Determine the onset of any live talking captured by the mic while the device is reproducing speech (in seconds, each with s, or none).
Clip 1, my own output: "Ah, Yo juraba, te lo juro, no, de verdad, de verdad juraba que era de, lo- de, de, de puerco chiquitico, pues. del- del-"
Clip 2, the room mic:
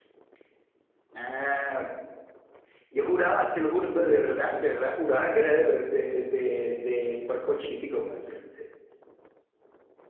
none